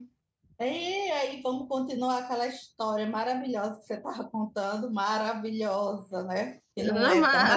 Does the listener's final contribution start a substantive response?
Yes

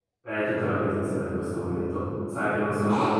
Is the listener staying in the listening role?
Yes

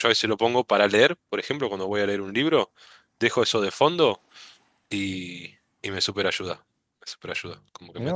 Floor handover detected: Yes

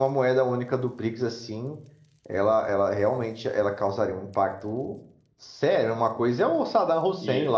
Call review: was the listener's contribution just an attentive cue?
Yes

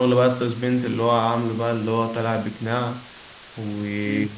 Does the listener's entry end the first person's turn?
Yes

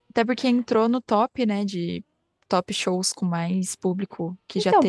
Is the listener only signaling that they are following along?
No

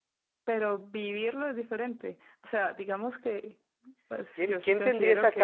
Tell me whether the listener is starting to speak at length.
Yes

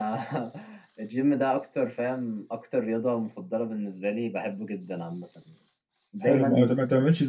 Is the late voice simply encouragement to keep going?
No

